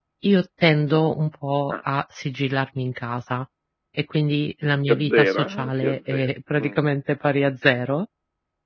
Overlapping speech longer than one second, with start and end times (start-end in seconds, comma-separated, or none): 4.9-6.8